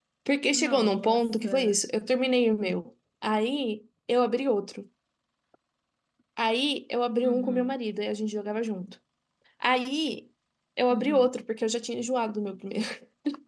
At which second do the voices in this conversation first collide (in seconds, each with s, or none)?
0.5 s